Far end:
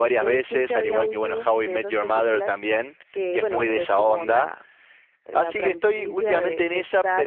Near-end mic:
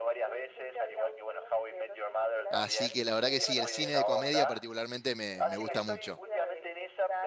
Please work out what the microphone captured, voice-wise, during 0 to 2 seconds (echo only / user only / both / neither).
echo only